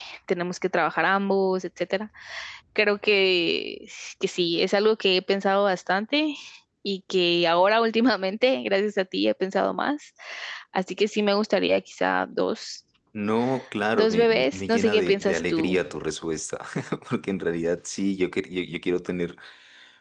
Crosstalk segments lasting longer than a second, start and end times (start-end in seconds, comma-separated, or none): 13.9-15.8